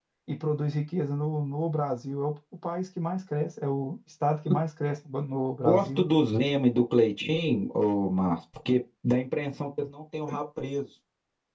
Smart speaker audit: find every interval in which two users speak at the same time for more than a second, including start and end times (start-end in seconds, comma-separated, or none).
none